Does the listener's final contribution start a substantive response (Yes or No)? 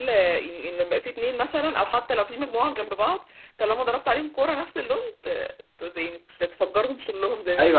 Yes